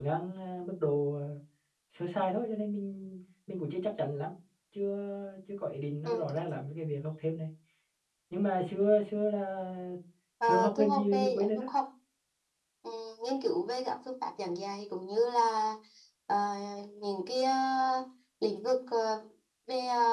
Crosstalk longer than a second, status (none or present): present